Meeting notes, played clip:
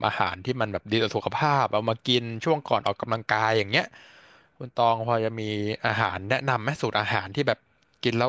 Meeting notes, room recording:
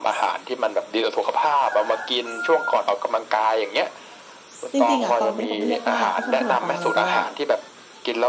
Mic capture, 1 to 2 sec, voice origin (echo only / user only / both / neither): echo only